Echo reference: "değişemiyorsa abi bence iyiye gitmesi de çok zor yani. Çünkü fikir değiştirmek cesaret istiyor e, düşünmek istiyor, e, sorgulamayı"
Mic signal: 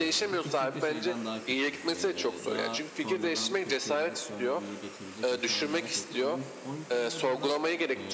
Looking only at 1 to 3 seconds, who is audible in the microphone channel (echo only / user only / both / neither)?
both